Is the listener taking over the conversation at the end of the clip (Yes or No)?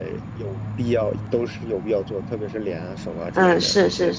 Yes